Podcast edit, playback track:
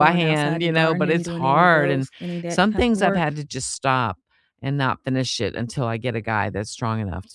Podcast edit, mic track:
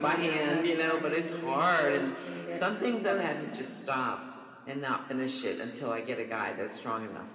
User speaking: No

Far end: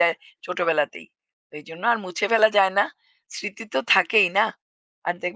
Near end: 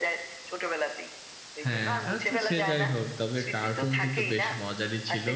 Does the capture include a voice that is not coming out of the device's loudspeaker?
Yes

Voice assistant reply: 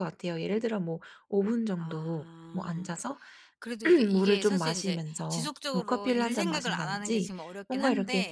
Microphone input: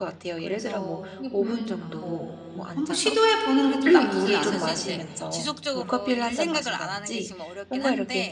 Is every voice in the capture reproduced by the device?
No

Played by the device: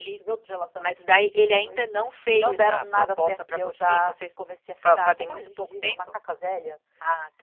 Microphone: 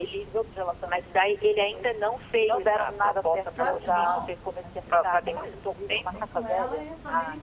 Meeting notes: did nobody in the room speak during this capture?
No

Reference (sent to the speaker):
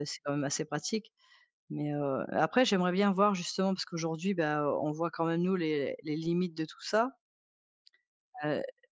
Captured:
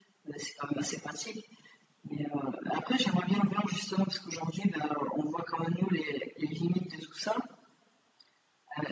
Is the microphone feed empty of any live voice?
Yes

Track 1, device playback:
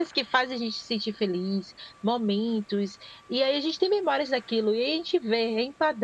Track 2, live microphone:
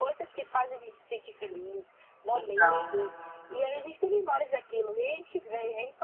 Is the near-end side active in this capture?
Yes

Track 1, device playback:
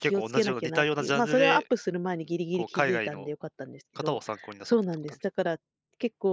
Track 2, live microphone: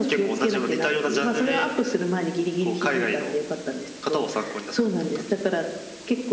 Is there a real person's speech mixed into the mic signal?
No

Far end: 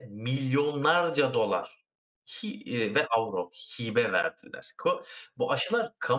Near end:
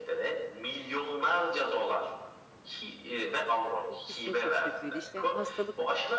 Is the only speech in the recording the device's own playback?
No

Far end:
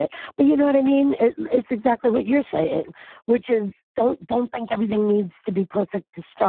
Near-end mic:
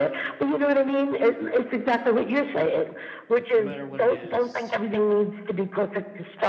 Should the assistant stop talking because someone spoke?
Yes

